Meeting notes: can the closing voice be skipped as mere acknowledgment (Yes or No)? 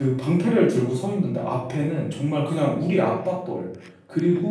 Yes